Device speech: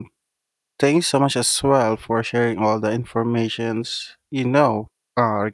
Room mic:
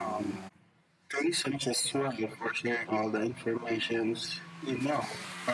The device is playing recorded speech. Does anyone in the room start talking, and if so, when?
none

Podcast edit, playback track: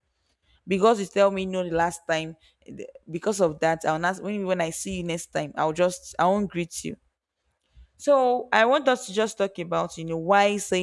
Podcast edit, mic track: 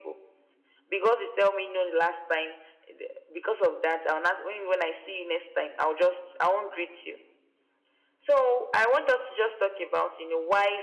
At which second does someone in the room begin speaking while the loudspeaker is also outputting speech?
none

